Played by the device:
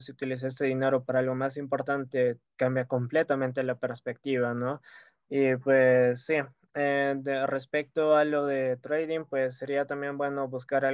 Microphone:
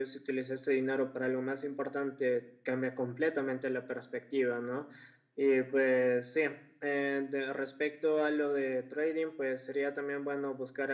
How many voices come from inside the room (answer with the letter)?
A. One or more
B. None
B